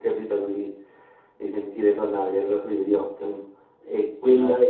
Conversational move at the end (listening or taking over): listening